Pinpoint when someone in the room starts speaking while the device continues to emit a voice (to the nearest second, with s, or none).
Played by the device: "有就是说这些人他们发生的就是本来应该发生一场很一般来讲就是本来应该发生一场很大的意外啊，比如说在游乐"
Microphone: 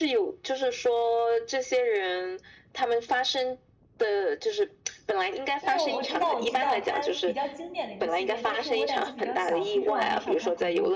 6 s